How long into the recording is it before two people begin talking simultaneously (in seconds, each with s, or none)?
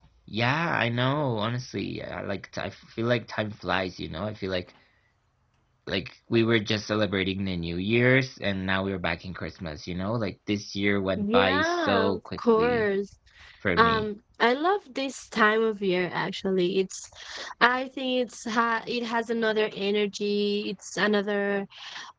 11.2 s